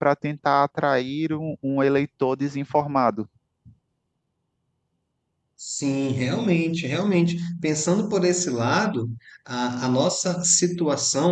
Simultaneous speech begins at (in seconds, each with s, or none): none